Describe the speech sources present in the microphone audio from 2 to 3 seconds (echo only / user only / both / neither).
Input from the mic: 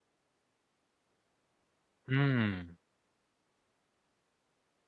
user only